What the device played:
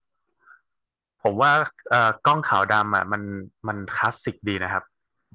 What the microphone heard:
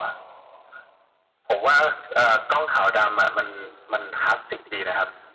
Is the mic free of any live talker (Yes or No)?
Yes